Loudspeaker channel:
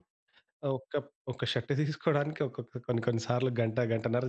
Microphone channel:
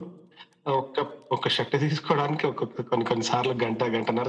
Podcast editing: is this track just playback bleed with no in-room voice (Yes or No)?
Yes